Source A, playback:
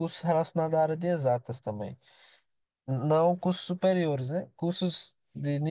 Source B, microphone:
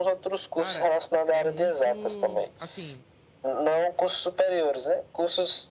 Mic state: both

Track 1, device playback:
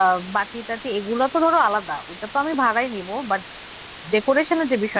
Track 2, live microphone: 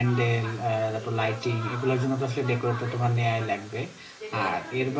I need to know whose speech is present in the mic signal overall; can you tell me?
both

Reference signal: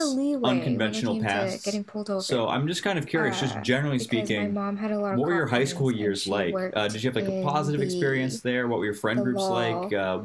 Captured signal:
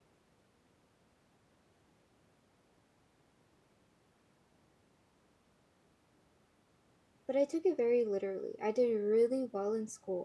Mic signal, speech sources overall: user only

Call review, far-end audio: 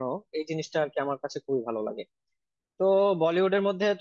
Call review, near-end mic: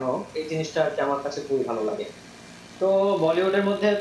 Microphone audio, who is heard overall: echo only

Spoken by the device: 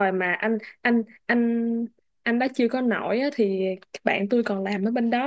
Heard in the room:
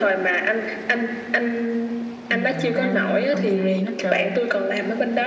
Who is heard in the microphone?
both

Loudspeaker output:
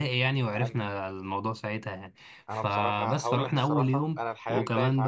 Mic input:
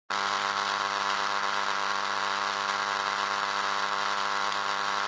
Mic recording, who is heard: neither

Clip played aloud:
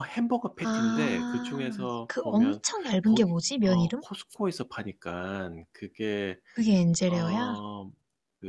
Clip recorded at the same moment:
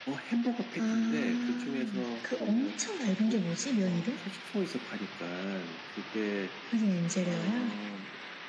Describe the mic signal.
echo only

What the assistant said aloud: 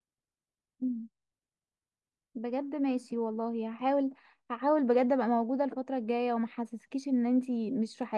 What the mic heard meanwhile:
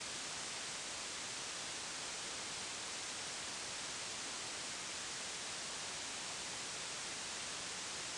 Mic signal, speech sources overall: neither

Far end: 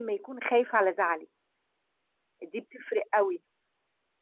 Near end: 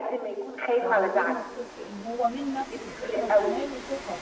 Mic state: both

